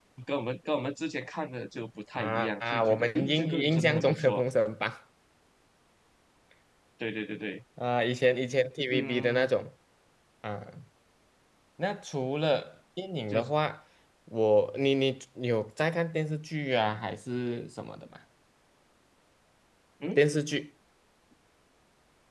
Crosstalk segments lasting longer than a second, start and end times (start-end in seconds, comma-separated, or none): 2.2-4.4